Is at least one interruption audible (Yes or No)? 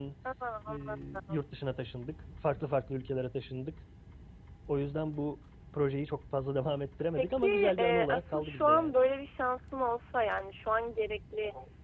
Yes